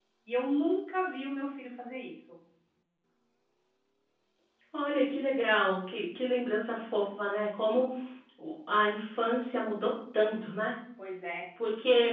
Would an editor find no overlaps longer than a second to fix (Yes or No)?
Yes